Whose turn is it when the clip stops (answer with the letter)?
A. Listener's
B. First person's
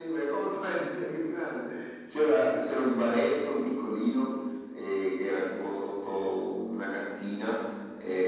B